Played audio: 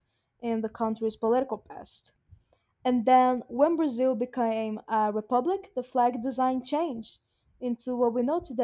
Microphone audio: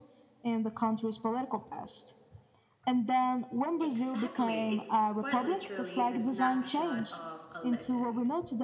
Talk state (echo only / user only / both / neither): both